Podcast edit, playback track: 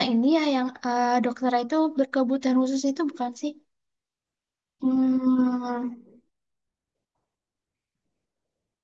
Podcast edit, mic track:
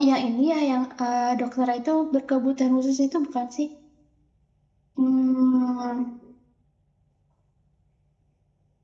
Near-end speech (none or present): none